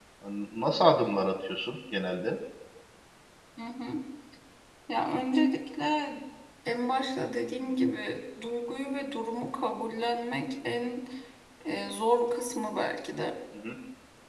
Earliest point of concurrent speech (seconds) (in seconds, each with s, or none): none